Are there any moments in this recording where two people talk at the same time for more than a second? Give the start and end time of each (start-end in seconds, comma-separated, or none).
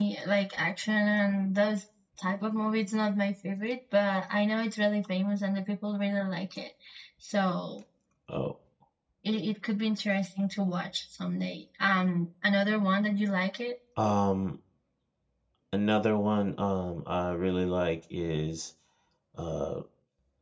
none